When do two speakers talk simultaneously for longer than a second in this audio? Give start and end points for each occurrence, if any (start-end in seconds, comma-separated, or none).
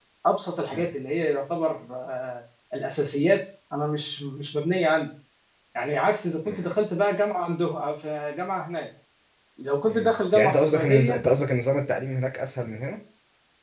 9.9-11.2